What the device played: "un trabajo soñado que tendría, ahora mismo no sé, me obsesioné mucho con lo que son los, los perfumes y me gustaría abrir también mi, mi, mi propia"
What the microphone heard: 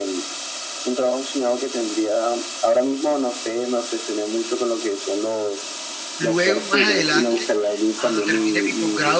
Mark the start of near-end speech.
6.2 s

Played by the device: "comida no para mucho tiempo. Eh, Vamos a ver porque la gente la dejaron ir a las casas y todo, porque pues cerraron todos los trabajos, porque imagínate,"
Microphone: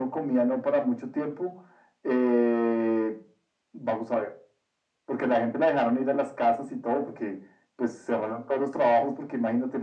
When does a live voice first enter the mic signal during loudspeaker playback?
none

